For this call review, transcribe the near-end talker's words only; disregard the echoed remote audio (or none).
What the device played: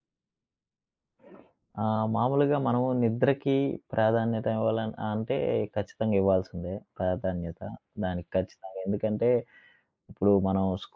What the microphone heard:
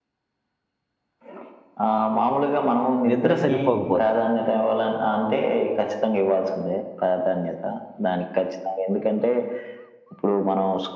నిద్ర సరిపోకపోతే.